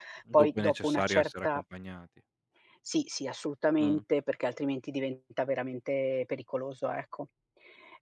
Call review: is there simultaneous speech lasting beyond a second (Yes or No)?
Yes